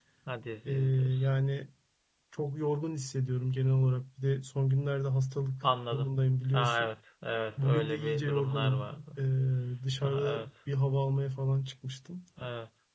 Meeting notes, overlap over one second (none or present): present